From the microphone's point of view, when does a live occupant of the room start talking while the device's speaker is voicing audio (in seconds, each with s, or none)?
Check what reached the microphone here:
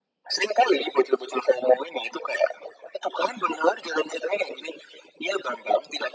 none